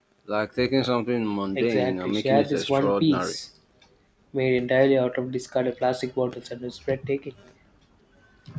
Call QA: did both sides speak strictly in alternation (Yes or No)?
No